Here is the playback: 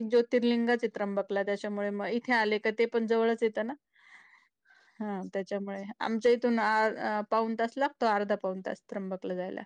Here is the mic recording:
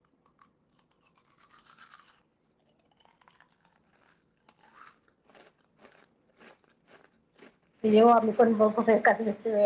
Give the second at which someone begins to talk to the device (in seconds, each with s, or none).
7.8 s